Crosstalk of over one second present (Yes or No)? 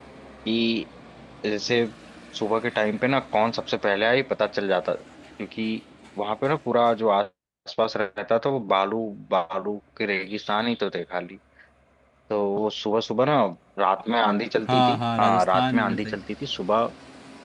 Yes